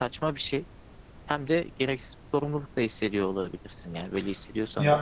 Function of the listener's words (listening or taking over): taking over